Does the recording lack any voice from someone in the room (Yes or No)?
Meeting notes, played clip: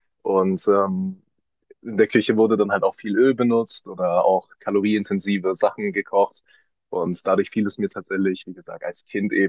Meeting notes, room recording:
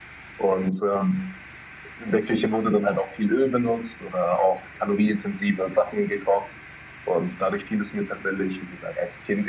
Yes